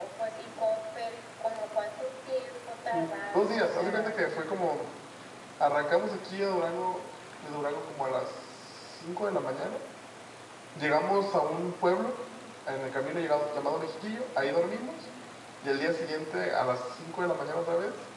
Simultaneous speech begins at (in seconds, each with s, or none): 2.9 s